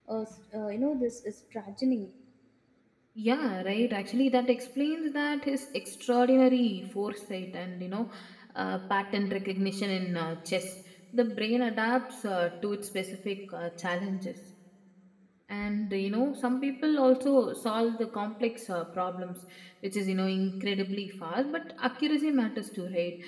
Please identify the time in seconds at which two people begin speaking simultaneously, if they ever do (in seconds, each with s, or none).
none